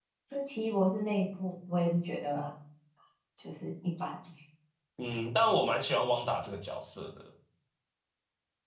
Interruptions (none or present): none